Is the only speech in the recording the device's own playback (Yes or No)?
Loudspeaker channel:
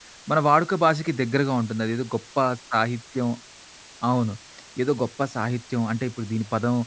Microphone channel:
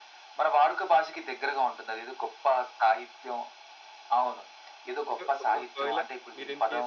No